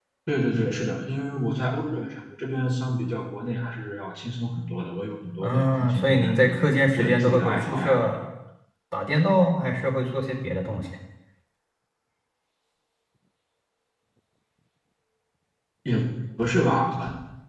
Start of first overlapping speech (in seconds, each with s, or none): 5.4 s